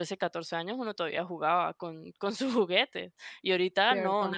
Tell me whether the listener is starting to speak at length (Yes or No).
Yes